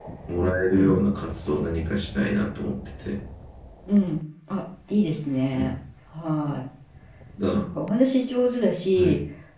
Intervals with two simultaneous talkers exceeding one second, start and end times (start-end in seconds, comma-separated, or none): none